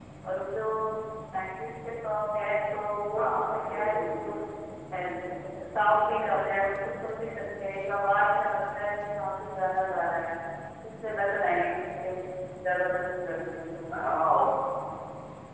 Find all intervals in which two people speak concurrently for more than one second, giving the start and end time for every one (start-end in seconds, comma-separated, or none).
3.2-4.4